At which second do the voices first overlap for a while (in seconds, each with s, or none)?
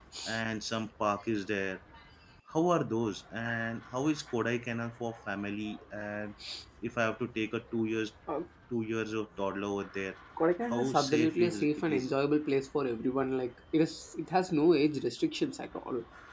10.7 s